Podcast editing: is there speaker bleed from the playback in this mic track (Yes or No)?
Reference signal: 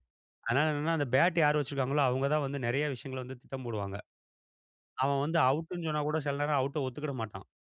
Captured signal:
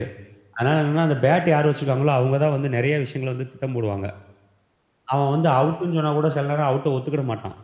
Yes